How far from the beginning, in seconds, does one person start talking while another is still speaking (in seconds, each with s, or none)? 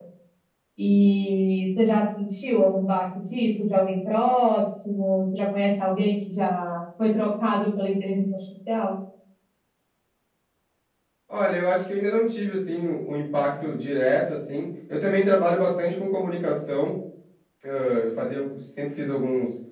none